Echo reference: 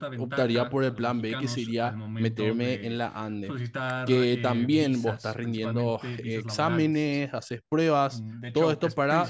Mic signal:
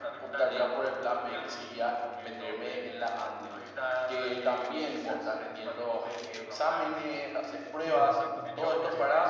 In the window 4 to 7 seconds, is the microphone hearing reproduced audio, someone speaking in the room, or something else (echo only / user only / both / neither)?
echo only